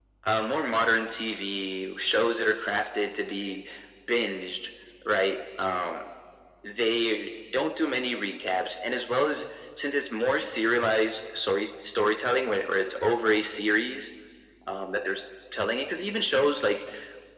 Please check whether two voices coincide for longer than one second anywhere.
No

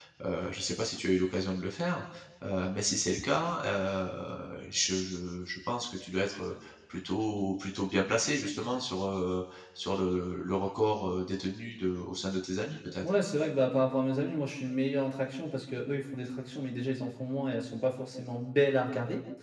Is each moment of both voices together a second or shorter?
Yes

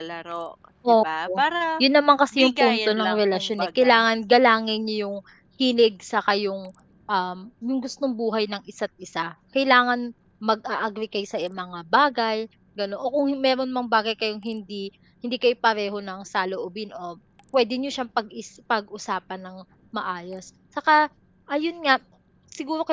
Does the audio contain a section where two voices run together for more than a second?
Yes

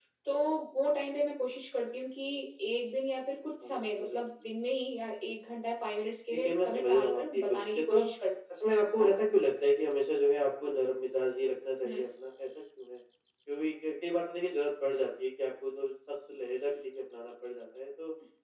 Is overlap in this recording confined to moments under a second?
No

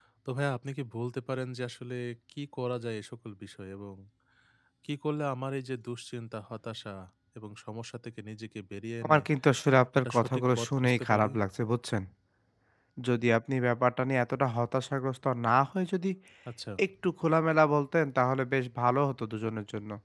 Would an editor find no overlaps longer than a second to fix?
No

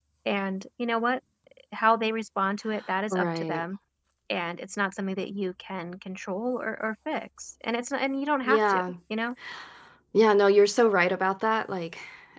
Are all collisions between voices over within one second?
Yes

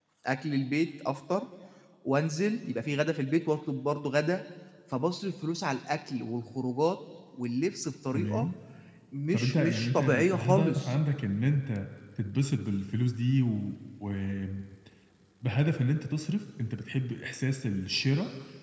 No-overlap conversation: No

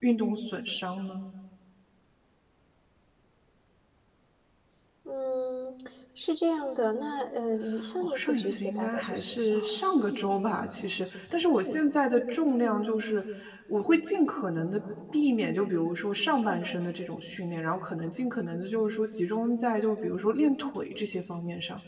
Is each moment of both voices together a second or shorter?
No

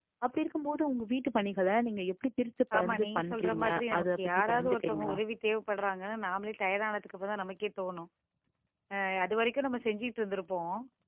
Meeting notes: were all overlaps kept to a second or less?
No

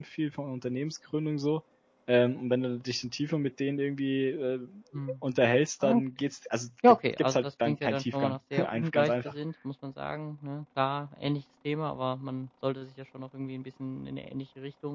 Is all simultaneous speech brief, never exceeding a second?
No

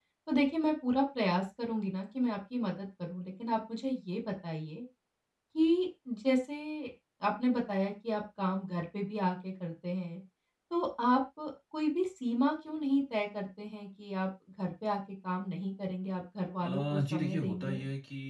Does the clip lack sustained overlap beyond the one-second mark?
No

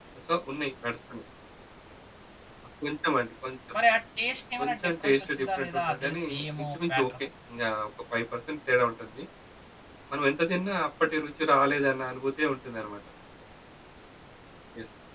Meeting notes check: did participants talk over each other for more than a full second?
Yes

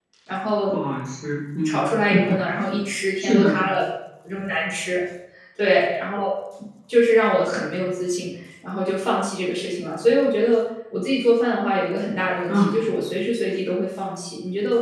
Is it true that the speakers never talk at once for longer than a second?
Yes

